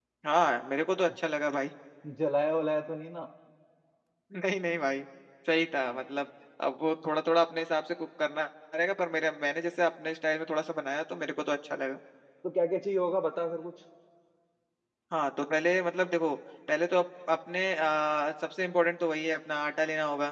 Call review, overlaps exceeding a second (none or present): none